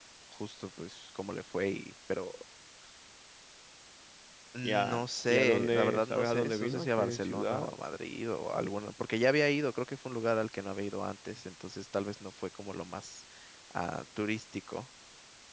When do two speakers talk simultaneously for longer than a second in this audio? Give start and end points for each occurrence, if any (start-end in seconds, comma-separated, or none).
4.6-7.7